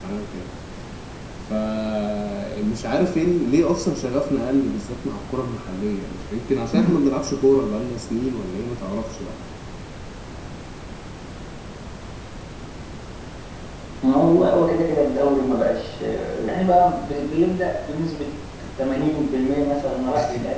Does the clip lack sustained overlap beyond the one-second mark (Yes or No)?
Yes